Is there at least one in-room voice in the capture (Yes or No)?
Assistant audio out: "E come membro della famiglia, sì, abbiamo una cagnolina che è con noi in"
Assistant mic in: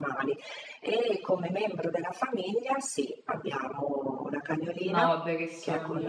Yes